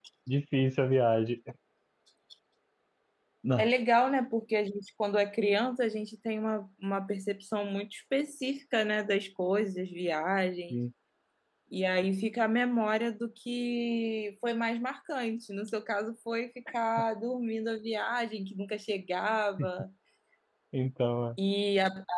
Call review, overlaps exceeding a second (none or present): none